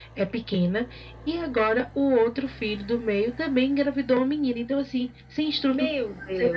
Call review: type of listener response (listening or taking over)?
taking over